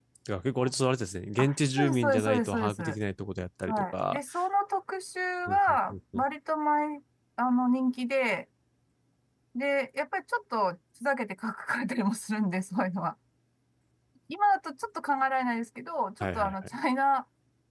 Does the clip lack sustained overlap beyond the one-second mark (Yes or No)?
No